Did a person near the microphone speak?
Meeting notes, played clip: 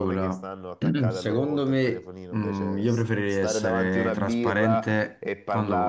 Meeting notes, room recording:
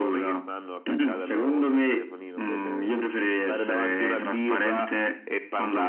No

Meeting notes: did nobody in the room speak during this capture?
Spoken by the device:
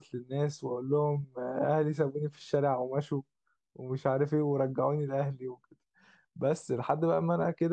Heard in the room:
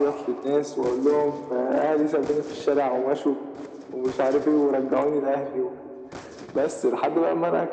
Yes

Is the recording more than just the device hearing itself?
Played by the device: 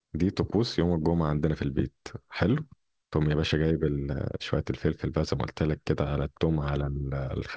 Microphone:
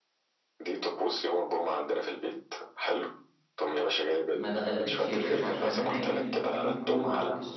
Yes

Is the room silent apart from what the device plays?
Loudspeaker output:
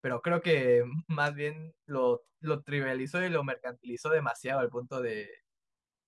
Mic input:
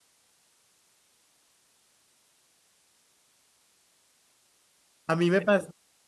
No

